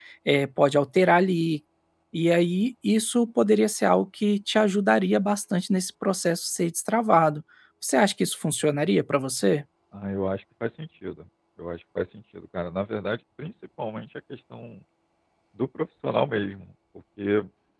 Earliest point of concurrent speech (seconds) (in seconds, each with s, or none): none